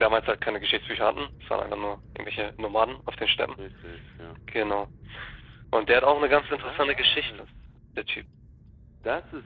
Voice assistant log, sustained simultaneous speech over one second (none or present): present